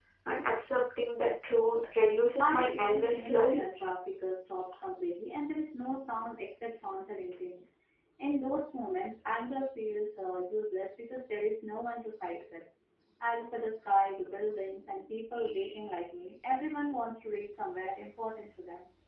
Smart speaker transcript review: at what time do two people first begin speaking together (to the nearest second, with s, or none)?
2 s